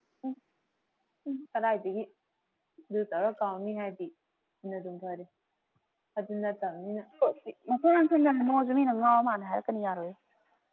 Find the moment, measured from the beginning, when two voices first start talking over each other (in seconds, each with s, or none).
none